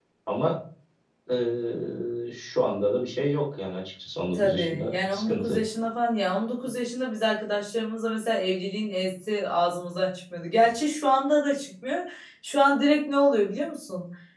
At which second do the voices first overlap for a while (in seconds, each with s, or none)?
4.3 s